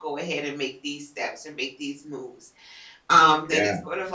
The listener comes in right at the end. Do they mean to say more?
No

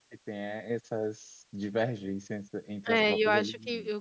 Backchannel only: No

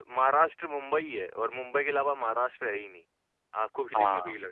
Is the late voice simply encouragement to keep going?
No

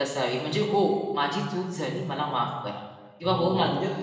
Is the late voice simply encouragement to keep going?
No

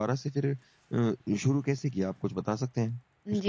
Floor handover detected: Yes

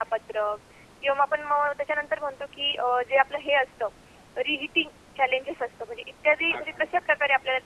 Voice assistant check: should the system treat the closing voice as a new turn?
No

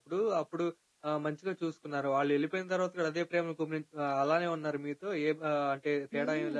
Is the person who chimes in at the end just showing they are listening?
No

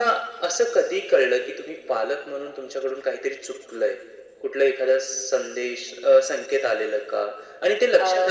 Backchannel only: Yes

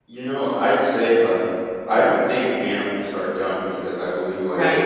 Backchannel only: Yes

